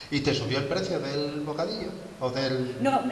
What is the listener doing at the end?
taking over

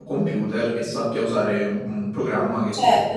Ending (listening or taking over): taking over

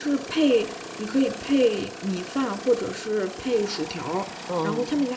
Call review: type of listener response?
listening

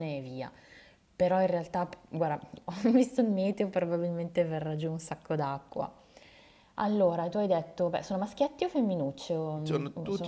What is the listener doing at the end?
taking over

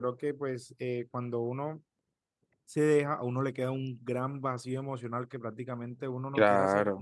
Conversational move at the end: listening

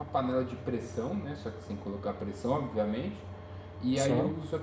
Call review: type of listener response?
listening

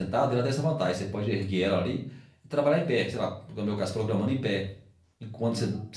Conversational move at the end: listening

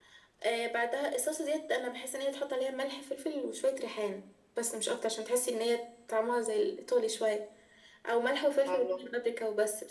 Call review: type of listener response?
listening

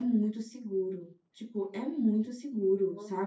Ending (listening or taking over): listening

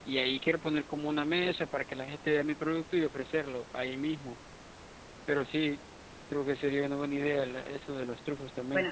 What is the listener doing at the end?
taking over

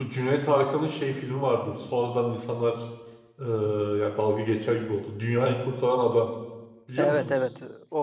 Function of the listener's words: taking over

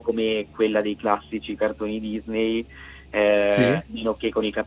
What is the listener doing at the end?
listening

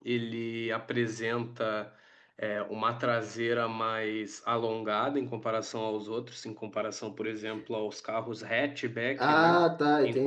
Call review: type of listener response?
taking over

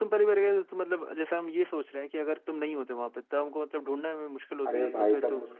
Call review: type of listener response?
taking over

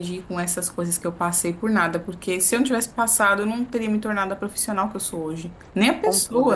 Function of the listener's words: taking over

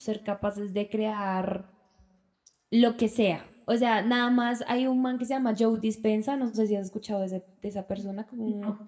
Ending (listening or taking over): listening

